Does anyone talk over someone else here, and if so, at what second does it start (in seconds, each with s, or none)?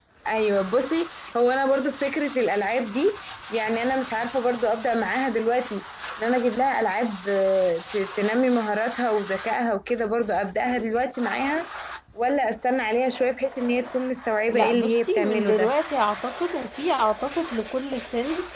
14.5 s